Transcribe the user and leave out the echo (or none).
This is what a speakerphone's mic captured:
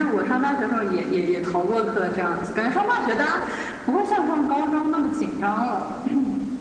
none